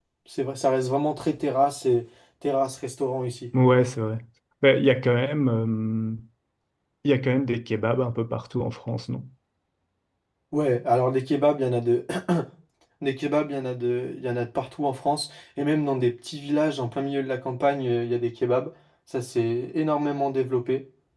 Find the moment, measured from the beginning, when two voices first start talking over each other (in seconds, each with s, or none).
none